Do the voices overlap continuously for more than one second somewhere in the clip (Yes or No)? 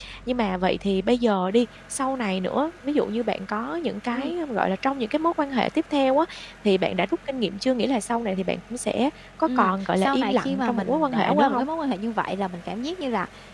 Yes